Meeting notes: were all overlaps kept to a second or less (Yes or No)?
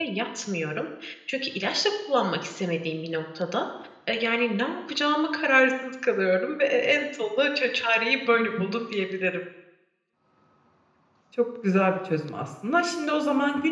Yes